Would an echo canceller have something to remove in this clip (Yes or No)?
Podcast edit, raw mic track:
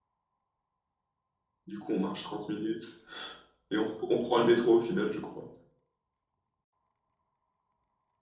No